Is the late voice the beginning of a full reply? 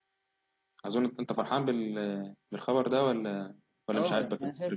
Yes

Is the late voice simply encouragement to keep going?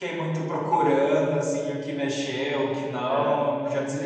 Yes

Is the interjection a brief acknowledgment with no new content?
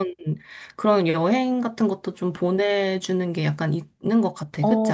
No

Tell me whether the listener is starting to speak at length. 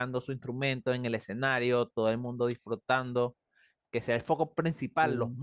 No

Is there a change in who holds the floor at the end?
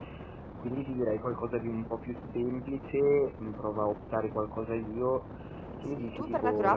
Yes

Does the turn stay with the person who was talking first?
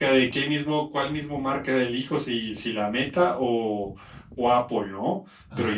Yes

